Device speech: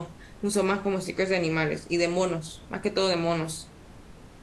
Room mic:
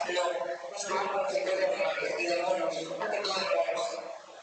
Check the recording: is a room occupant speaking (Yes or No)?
Yes